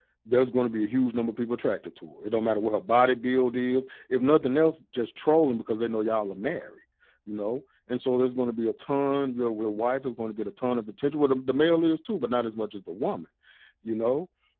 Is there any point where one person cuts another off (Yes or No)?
No